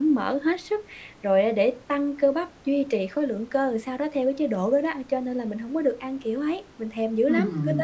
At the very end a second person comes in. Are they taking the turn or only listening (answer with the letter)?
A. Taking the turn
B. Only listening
A